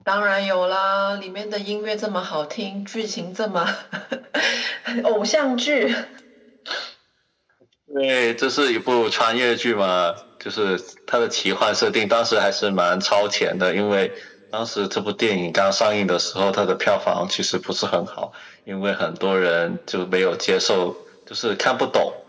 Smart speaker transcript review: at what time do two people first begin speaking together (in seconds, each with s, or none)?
none